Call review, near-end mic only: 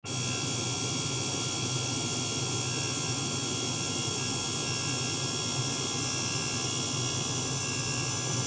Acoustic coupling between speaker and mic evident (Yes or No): No